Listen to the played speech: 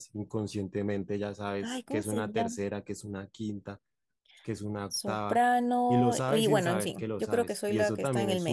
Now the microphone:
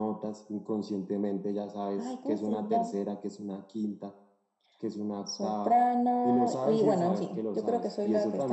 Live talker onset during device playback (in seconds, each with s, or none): none